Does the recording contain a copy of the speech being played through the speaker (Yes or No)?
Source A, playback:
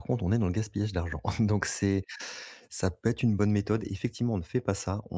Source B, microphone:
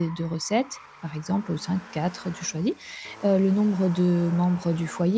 No